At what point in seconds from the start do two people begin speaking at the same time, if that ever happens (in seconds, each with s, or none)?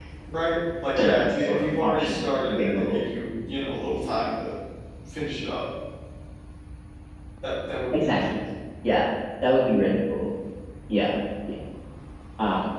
1.0 s